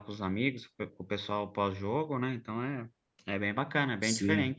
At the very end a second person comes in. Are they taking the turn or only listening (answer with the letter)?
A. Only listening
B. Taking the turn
B